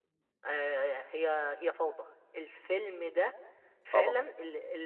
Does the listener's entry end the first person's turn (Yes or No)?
No